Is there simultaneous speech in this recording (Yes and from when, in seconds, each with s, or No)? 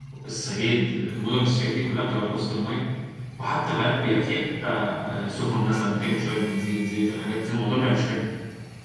No